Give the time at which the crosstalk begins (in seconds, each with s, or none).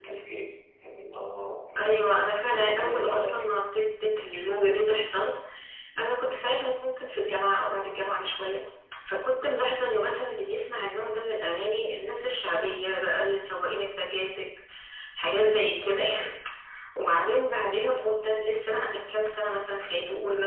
1.8 s